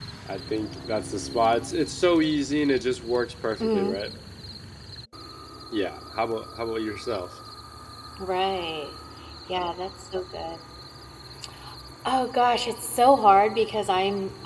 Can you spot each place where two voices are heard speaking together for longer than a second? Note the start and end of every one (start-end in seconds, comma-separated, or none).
none